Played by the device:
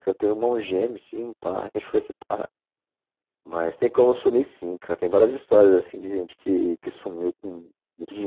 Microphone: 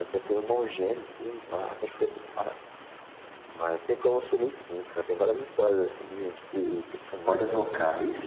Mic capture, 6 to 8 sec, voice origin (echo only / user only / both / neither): both